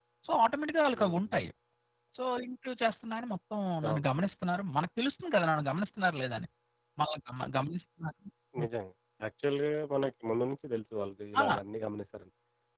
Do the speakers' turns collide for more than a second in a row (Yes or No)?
No